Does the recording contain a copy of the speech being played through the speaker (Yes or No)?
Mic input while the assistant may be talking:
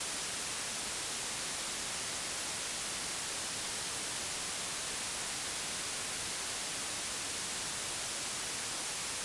No